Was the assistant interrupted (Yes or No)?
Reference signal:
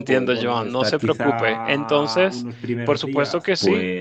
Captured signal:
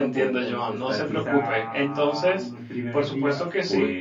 No